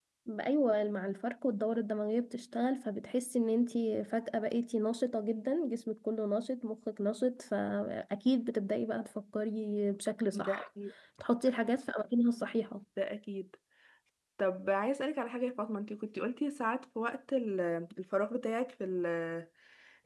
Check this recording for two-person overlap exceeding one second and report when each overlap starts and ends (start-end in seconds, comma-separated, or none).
none